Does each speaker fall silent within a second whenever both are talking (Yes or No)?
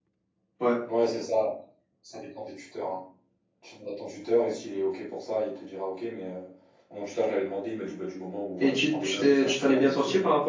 No